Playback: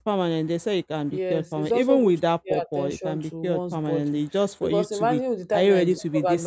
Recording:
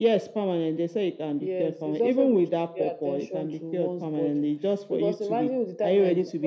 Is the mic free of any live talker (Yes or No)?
Yes